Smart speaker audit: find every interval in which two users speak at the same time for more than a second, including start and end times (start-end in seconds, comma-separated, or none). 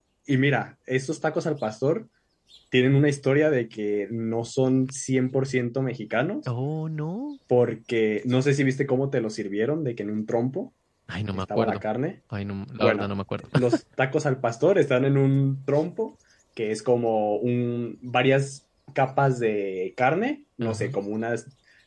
none